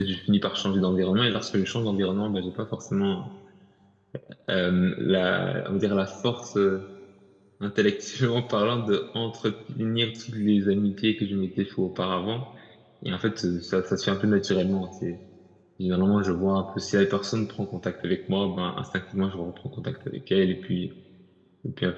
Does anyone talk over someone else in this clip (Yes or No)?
No